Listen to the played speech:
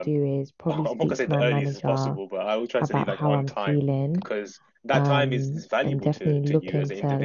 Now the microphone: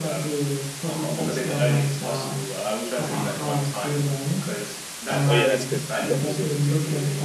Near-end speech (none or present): present